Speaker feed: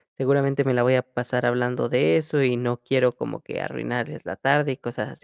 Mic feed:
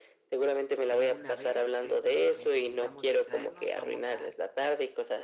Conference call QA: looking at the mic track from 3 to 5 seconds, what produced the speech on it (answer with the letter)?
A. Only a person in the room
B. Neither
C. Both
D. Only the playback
C